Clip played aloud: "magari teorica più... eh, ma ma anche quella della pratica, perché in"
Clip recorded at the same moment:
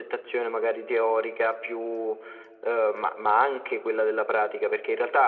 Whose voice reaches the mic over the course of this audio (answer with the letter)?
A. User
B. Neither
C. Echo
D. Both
C